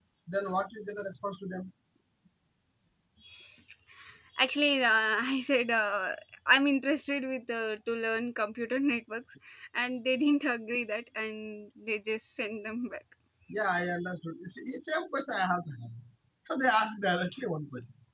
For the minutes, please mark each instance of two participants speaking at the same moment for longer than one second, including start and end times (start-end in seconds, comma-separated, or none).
none